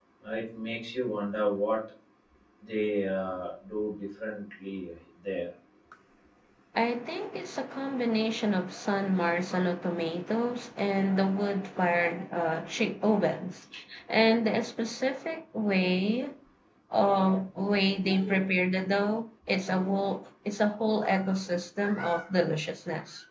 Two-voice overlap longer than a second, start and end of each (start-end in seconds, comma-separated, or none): none